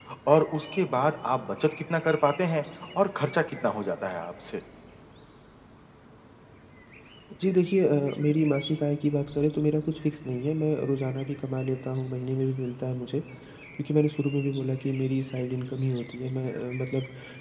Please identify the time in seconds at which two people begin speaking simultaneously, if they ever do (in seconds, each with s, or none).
none